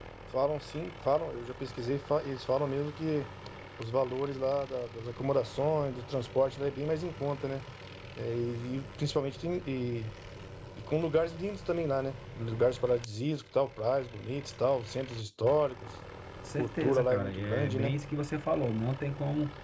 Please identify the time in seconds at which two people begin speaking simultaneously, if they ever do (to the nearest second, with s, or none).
17 s